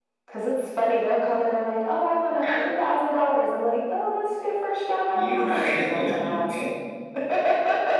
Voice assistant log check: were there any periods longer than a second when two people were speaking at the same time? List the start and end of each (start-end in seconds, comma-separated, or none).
5.1-6.8